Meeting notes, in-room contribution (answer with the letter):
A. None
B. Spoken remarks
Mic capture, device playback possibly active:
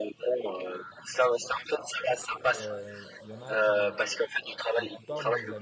B